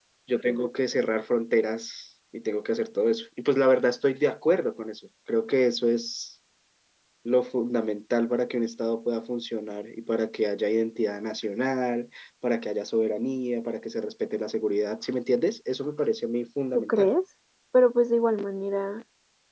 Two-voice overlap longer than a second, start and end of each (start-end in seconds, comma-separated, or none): none